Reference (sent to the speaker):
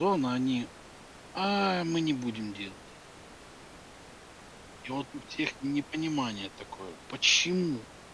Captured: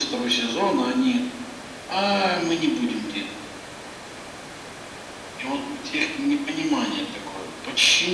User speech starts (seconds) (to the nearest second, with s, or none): none